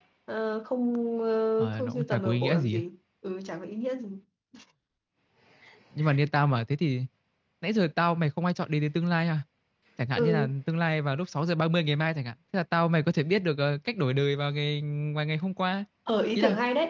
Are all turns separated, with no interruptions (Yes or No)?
No